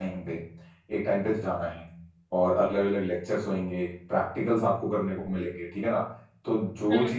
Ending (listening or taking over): listening